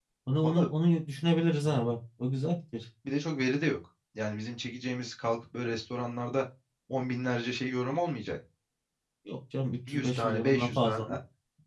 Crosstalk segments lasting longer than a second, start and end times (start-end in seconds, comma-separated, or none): 9.9-11.2